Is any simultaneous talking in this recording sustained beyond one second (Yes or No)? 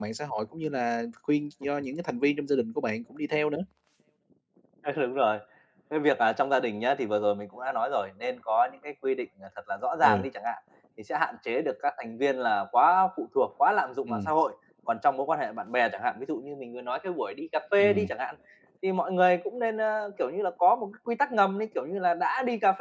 No